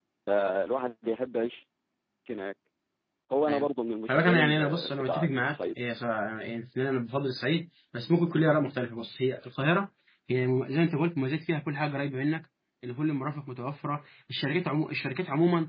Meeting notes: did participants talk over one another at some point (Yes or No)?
Yes